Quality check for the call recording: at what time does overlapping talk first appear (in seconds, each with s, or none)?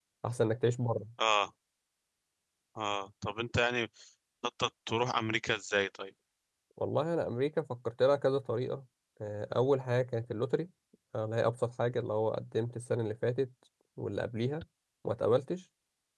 none